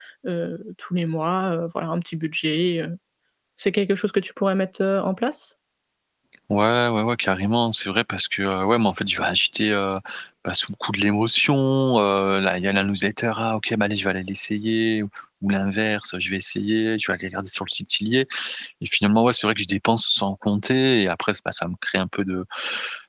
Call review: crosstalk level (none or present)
none